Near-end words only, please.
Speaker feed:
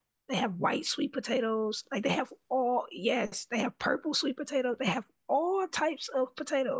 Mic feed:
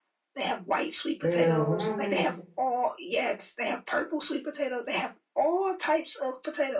girl, when I went,

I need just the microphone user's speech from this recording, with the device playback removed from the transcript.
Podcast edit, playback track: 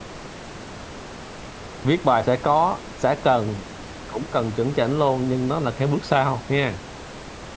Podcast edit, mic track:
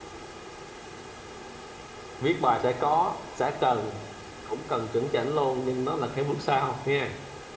none

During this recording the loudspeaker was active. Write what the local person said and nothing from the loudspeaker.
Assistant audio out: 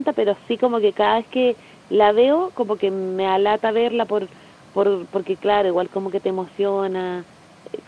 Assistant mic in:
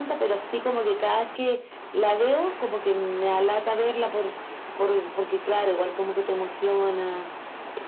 none

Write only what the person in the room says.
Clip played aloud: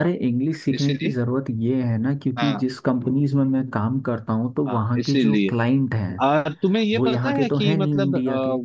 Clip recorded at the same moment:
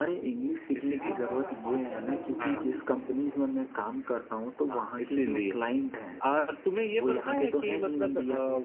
हाँ हाँ हाँ पाठशाला गुरुकुल

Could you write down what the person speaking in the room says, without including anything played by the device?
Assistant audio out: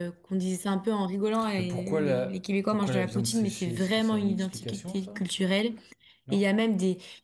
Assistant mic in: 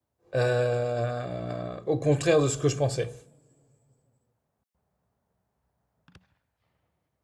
euh, au contraire de ce que je pensais.

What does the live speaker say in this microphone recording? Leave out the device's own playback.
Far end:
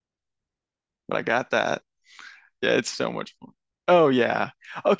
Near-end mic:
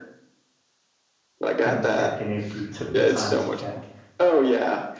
couldn't check, and if you took the time to check,

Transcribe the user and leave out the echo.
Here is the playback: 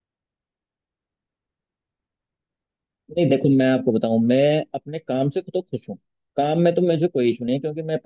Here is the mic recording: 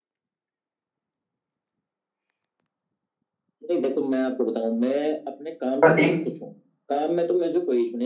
पर एक

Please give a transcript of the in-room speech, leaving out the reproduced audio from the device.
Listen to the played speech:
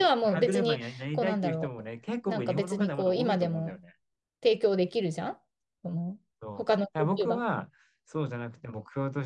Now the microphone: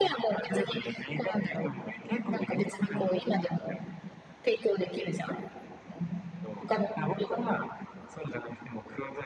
none

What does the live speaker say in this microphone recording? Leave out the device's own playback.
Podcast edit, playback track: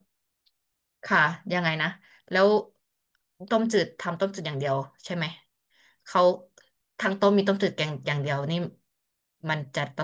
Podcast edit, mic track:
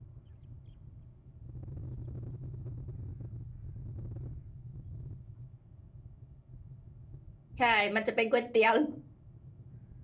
ใช่ มันจะเป็นก๋วยเตี๋ยว

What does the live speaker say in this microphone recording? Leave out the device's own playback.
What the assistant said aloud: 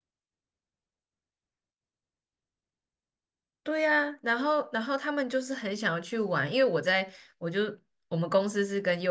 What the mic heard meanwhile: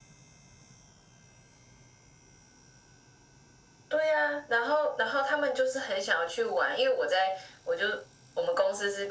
none

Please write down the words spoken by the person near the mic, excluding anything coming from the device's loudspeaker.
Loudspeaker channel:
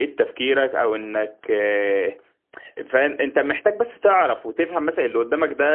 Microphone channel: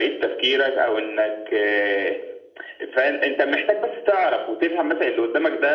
none

